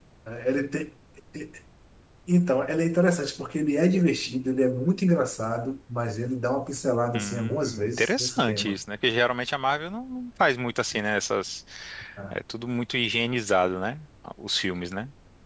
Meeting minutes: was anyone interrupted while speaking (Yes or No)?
Yes